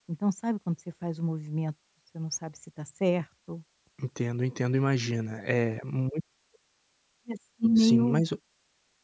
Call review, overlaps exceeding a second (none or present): none